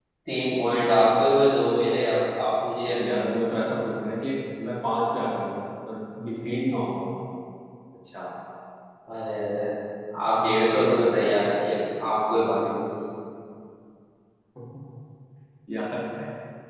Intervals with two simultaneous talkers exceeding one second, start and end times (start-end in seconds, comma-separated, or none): none